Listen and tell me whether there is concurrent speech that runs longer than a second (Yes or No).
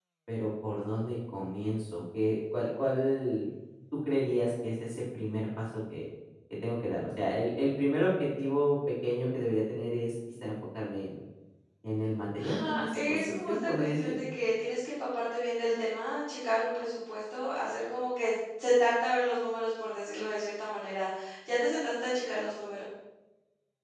Yes